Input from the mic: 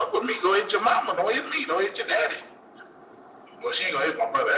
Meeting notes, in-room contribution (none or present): none